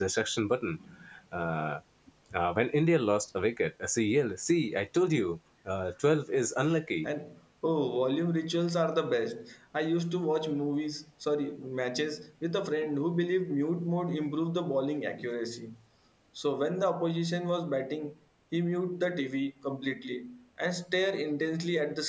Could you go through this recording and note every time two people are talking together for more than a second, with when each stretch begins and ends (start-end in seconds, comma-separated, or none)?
none